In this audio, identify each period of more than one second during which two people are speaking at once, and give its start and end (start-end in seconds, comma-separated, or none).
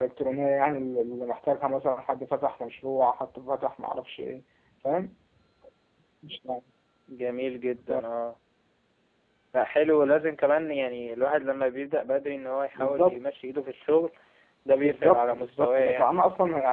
14.8-16.2